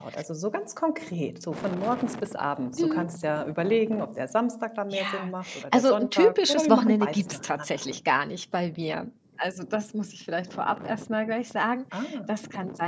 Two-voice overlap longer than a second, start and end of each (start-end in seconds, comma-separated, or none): 4.9-7.8